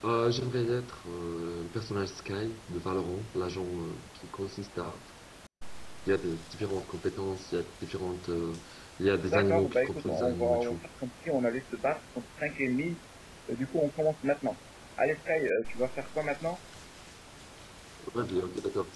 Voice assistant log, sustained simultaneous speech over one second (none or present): present